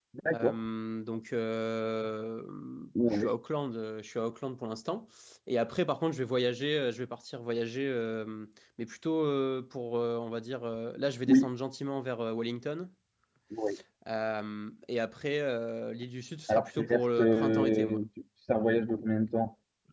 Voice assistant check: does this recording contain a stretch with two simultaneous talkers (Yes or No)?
Yes